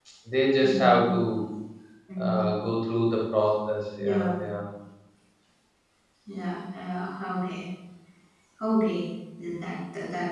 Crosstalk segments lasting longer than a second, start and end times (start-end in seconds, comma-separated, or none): none